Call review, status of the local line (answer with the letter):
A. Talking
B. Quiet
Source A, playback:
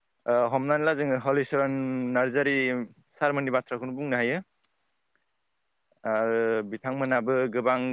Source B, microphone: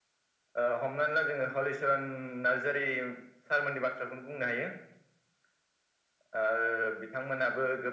B